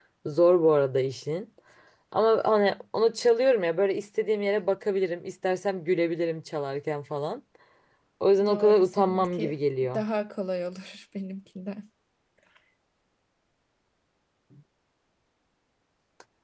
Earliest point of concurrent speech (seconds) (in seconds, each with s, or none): 8.5 s